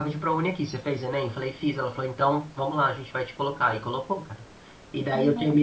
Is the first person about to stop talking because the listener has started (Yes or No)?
No